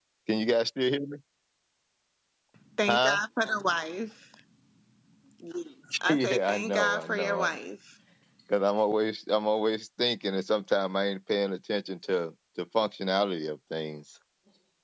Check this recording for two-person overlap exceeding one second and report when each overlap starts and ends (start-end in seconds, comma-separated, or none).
6.1-7.6